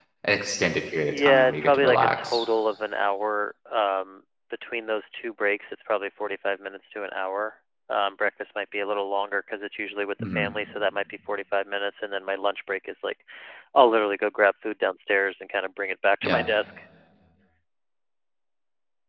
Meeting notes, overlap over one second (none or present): present